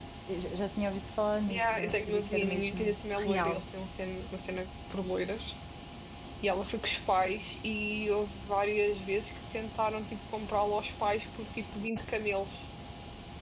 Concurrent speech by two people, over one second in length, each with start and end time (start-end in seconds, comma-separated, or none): 1.5-3.6